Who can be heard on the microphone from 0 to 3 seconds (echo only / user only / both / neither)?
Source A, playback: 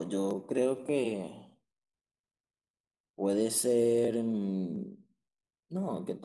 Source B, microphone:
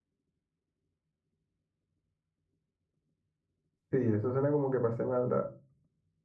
neither